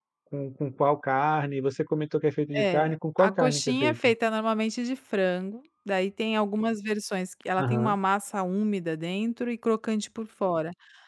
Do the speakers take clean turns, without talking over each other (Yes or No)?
No